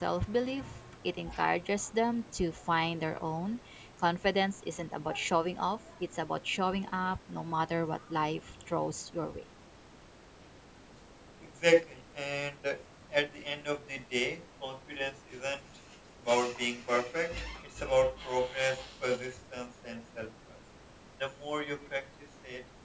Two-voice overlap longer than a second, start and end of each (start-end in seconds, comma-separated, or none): none